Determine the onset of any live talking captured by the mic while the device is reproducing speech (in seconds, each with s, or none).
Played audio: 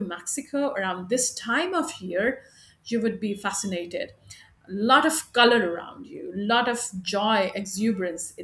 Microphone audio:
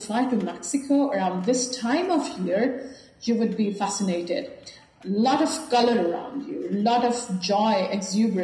none